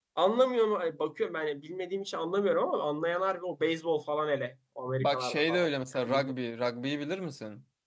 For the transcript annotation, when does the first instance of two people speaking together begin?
5.0 s

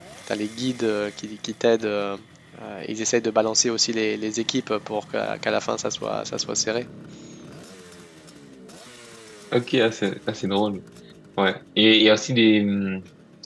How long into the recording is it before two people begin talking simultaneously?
none

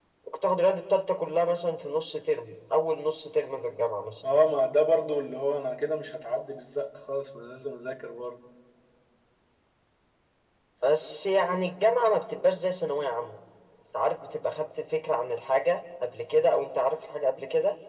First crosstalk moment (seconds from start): none

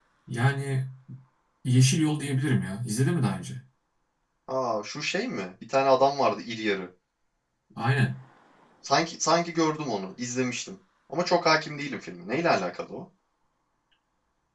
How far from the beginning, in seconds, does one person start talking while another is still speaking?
none

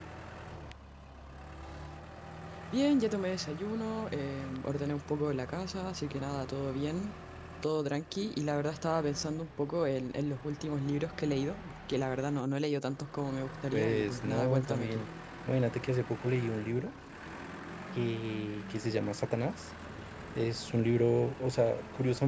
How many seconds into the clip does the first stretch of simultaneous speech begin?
13.7 s

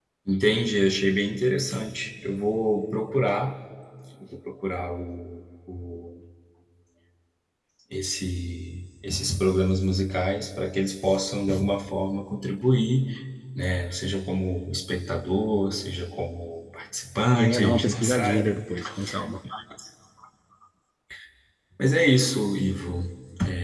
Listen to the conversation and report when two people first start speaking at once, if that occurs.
17.3 s

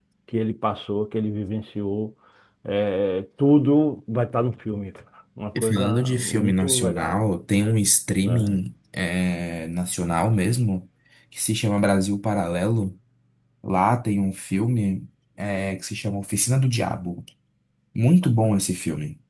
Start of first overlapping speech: 5.6 s

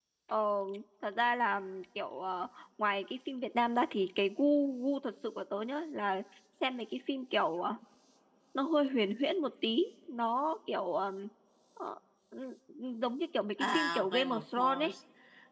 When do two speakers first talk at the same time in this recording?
13.6 s

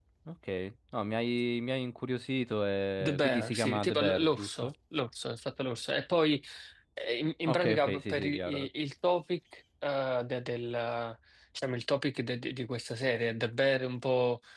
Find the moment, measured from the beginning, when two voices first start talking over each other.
3.0 s

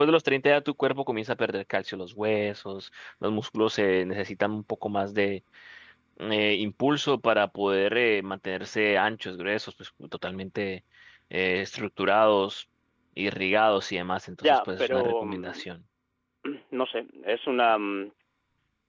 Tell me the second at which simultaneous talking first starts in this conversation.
14.4 s

